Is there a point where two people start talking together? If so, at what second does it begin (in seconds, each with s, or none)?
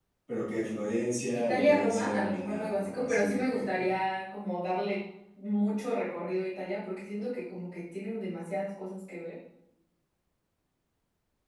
1.3 s